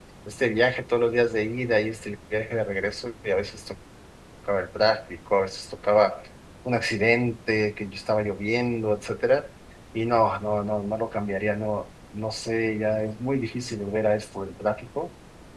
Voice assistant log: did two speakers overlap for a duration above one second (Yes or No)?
No